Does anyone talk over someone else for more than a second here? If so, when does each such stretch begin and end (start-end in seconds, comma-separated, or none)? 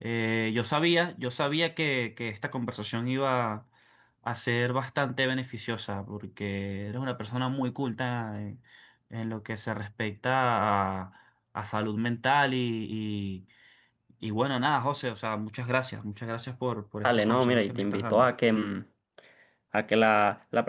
17.0-18.3